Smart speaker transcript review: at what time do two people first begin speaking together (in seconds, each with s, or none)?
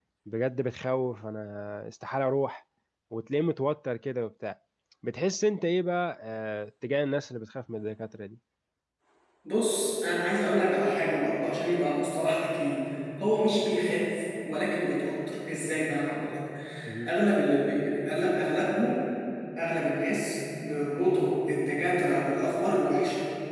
none